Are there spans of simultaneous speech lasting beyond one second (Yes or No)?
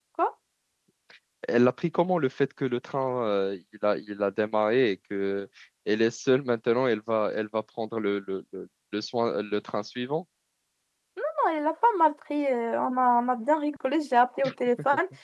No